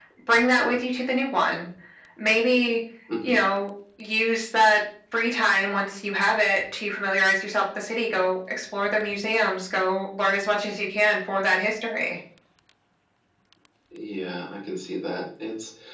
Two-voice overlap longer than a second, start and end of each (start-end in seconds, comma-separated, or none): none